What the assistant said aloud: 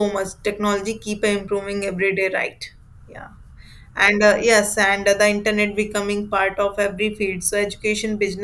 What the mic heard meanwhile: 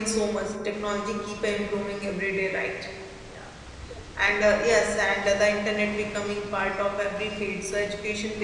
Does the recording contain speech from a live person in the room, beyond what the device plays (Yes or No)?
No